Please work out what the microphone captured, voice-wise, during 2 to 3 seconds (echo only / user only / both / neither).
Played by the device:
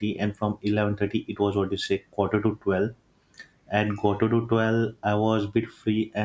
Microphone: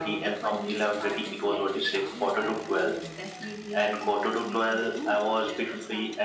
both